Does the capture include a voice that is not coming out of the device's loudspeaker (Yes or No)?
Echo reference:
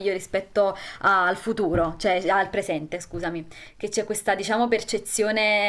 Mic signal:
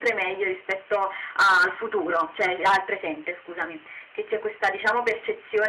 No